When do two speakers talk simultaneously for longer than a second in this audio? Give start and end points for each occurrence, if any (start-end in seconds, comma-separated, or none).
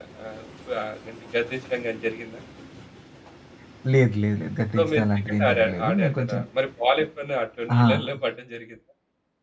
4.8-6.4